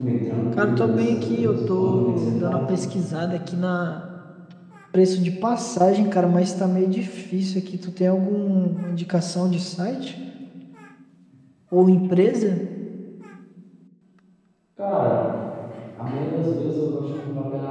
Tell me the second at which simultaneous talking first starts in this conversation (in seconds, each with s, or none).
0.6 s